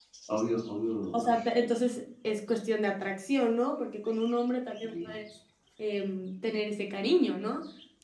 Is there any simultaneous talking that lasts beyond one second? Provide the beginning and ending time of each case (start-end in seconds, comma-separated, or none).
none